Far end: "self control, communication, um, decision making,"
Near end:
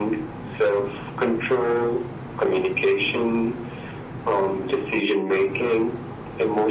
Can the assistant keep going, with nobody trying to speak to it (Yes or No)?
Yes